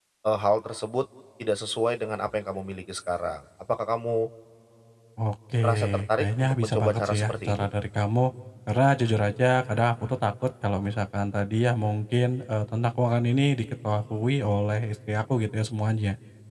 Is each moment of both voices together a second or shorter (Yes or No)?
No